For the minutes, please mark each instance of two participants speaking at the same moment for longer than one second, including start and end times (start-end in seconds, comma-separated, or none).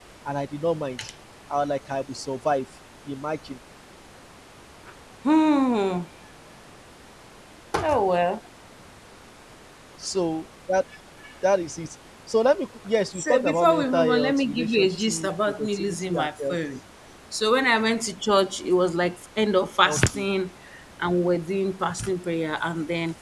13.2-16.6